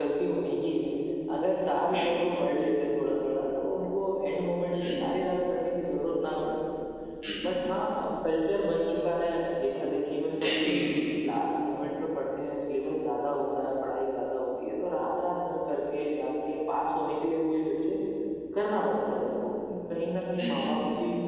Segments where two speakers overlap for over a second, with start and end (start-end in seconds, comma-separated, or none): none